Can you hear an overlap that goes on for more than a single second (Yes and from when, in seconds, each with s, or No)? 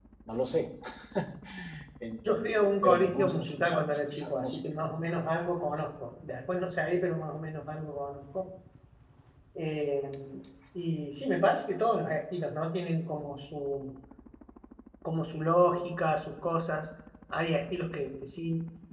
Yes, from 2.3 s